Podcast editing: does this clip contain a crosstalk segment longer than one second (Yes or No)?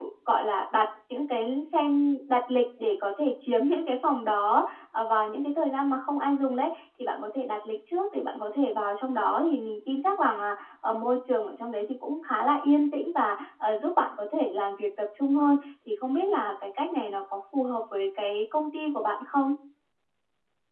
No